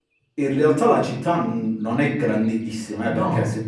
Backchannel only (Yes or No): Yes